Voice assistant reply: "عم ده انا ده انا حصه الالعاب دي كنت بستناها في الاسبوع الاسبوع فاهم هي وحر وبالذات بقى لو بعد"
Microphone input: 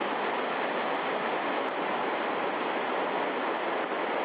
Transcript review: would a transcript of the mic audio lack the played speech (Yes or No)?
Yes